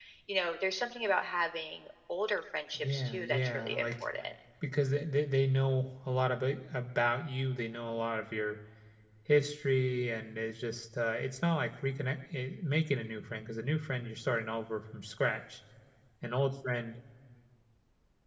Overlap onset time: 2.8 s

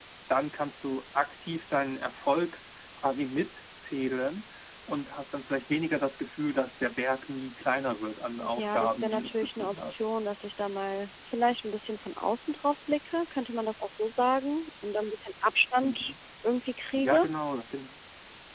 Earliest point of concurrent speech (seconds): 8.5 s

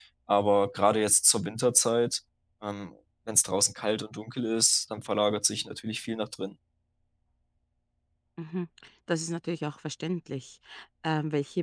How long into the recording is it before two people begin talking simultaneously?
none

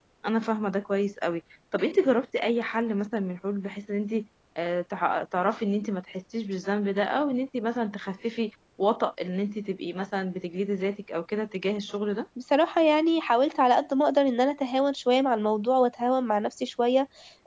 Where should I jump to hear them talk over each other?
none

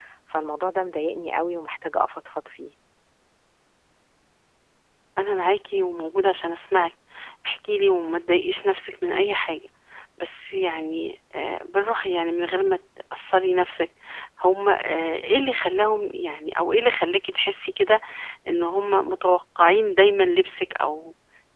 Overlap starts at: none

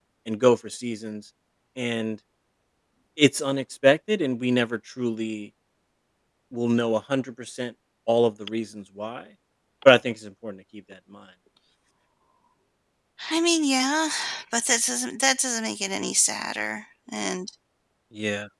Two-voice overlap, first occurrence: none

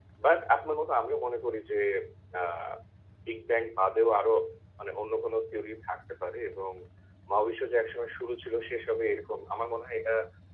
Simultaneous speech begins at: none

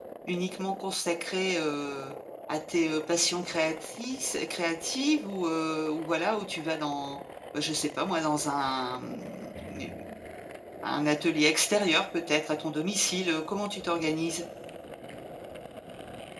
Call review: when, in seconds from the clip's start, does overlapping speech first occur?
none

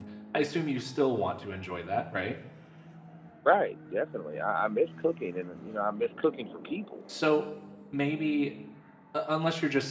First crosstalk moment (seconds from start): none

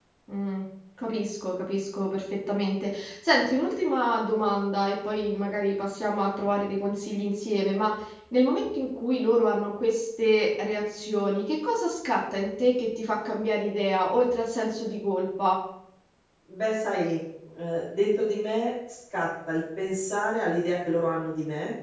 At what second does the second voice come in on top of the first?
none

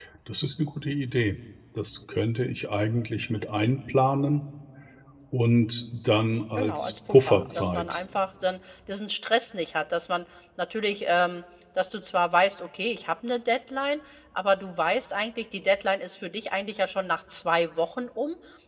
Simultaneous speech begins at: 6.6 s

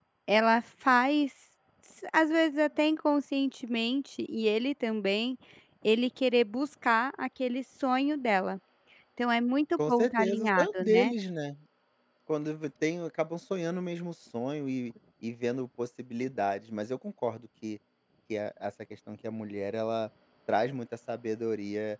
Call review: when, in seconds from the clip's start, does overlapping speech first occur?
9.9 s

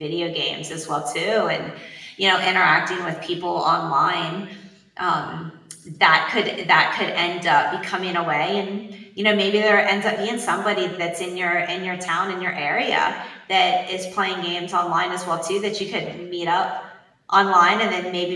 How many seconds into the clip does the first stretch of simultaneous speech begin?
none

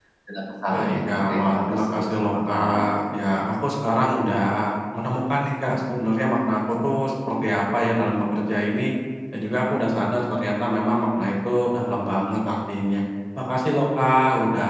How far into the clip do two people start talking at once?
0.7 s

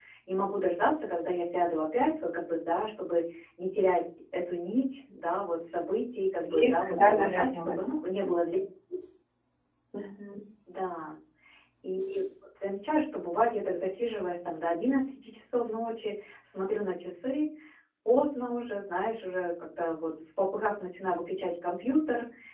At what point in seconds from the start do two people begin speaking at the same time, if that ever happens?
6.4 s

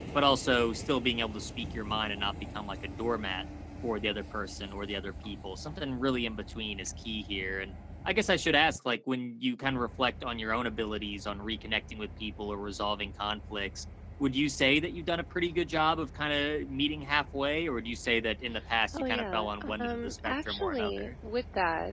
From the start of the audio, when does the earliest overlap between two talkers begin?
18.9 s

